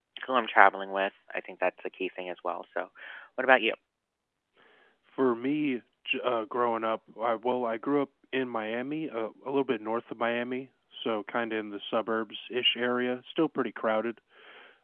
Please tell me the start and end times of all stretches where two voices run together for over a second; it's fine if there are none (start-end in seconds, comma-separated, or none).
none